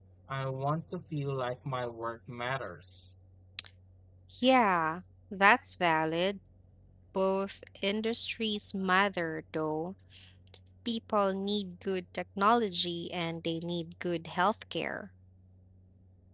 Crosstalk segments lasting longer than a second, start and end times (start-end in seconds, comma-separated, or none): none